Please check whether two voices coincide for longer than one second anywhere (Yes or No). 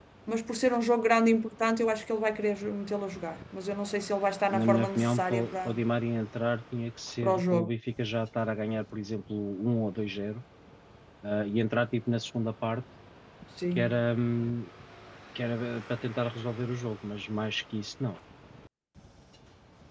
Yes